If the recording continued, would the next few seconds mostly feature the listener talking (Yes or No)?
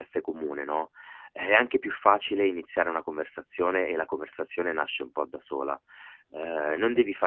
No